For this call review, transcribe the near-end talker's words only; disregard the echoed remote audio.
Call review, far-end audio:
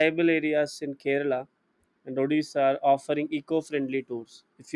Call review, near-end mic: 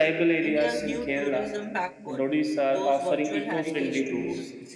India's new tourism backbone. Those virtual heritage tours

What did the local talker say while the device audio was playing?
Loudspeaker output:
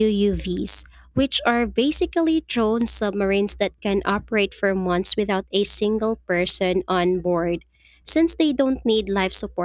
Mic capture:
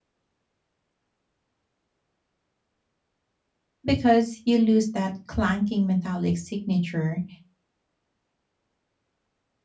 because you lose that clanking metallic signature

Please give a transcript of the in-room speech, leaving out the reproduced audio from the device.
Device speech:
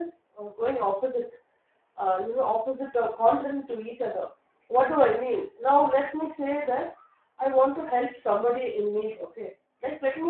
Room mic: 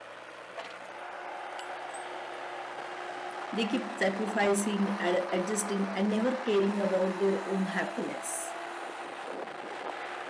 They keep sacrificing, ad- adjusting, and never caring about their own happiness.

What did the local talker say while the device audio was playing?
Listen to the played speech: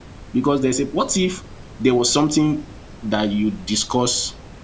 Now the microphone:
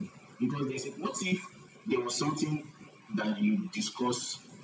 none

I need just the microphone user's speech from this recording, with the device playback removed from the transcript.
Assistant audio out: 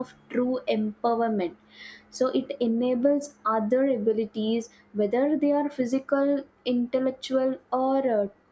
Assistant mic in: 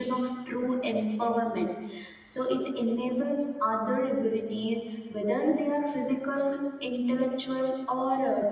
none

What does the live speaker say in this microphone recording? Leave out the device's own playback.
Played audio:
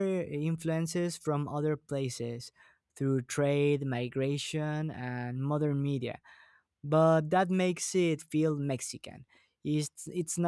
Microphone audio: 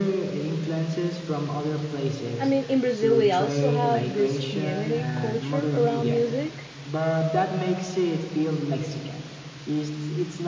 I mean, in Brazil, we also have this community culture around music.

